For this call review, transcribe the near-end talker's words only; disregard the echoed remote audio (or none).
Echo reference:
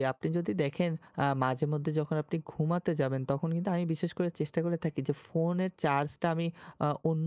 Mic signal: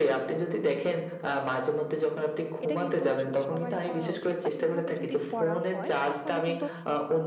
এটা কিন্তু আসলে সবারই করা উচিত বা এভাবে যদি করা হয়, তাহলে কিন্তু